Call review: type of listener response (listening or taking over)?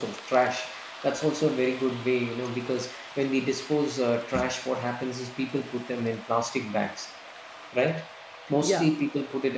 listening